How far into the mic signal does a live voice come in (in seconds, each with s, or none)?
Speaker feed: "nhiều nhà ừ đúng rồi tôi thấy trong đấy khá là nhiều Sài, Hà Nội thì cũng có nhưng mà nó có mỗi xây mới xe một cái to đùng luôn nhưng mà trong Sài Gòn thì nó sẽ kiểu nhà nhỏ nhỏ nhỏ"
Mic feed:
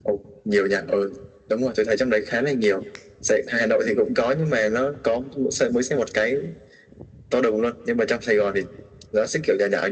none